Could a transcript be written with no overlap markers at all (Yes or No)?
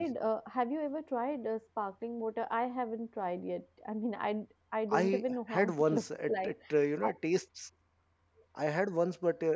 No